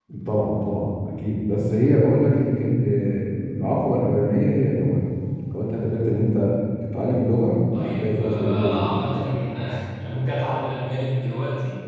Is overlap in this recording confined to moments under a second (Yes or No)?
No